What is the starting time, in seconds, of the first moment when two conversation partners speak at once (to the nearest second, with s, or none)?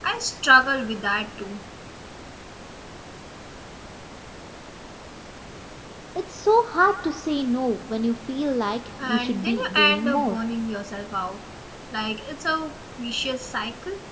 9 s